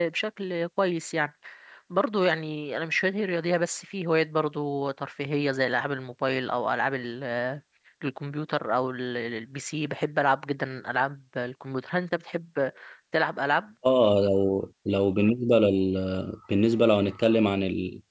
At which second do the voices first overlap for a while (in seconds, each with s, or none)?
none